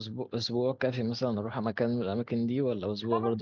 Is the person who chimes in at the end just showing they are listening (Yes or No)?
No